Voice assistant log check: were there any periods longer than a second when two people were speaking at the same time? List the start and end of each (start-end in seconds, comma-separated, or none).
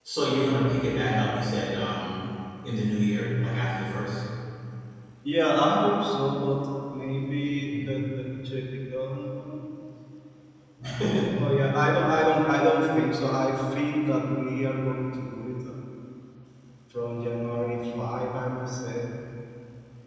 none